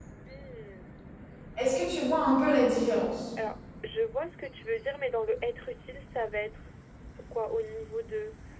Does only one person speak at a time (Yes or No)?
Yes